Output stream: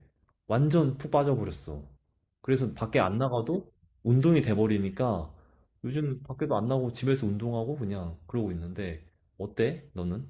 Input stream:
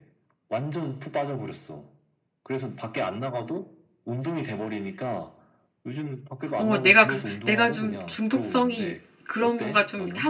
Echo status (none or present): present